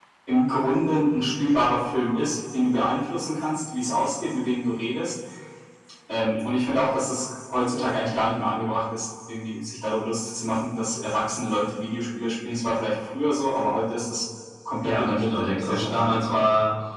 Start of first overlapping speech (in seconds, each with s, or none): 14.8 s